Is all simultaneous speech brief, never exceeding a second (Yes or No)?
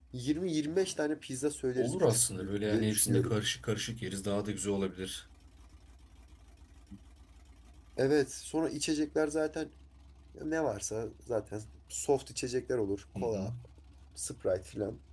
No